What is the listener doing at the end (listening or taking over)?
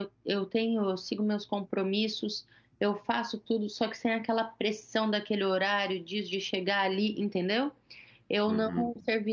listening